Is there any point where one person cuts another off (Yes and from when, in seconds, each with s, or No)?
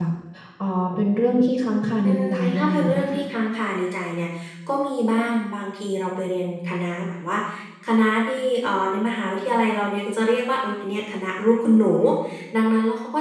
Yes, from 2.0 s